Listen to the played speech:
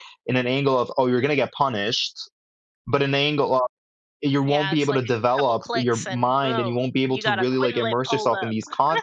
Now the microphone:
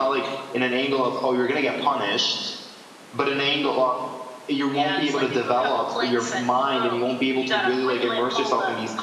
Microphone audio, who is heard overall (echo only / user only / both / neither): both